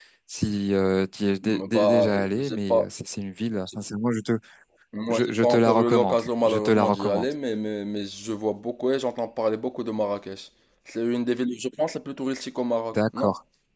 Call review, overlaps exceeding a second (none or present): present